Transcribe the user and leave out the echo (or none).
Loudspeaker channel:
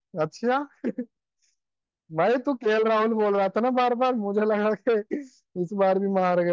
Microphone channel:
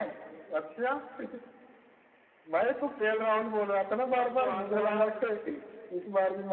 सन 2000